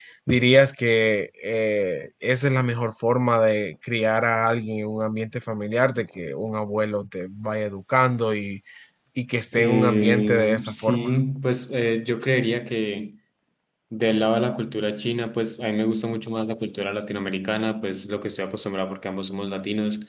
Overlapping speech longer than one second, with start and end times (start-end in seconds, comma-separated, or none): 9.5-11.2